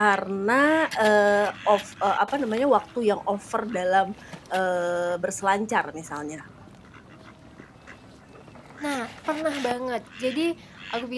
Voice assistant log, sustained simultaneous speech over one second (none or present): none